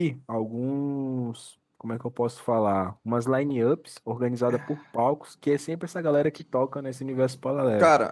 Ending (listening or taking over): taking over